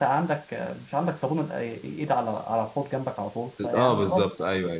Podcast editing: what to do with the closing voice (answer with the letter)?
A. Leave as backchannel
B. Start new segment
B